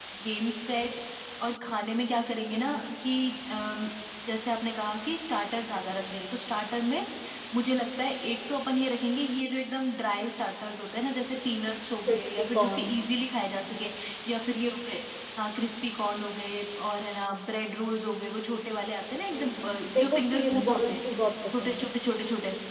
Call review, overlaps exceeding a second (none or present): present